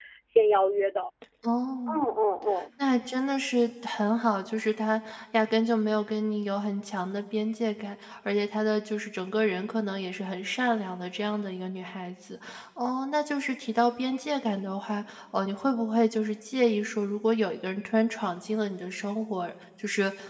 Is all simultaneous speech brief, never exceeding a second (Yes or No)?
Yes